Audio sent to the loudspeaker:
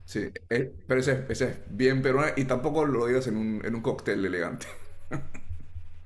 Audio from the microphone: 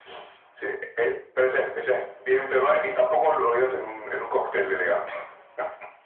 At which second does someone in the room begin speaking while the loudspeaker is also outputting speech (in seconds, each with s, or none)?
none